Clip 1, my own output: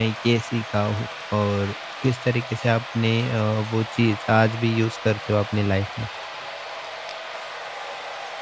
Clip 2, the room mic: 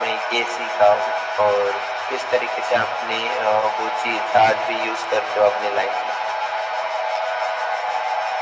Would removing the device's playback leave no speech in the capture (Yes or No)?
Yes